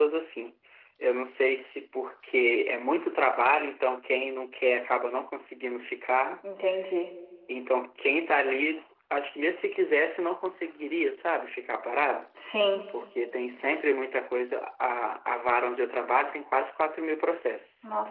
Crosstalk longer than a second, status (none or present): none